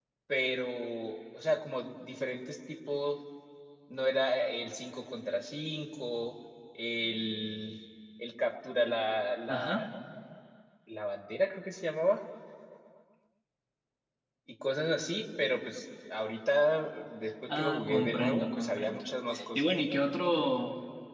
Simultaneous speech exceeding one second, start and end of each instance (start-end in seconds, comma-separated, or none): 17.6-19.0